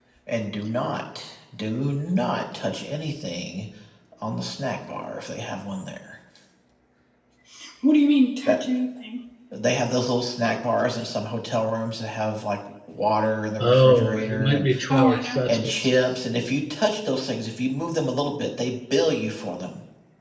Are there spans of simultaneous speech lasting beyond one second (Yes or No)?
Yes